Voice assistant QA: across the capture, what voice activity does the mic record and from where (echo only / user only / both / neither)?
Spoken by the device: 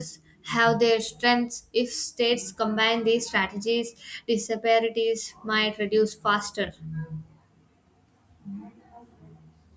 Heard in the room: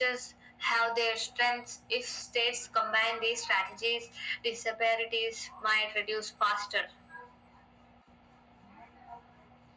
echo only